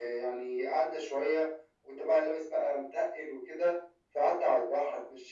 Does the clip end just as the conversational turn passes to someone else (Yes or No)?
No